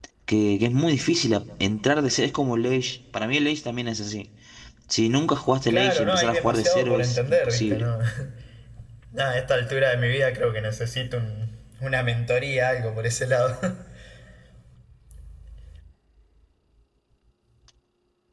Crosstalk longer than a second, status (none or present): present